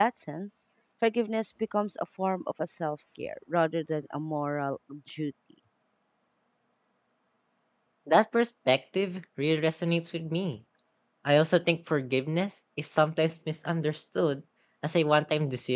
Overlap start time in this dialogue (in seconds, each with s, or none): none